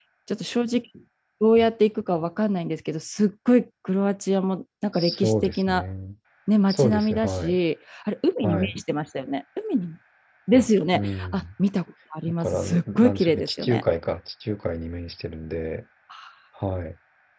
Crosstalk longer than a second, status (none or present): present